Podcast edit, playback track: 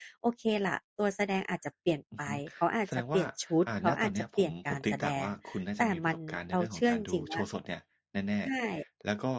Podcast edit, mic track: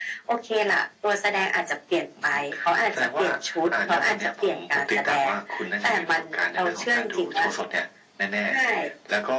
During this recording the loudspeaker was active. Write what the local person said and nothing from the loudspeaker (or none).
none